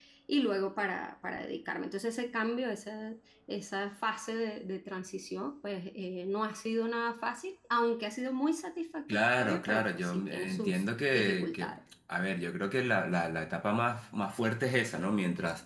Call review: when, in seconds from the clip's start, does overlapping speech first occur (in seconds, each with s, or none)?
9.1 s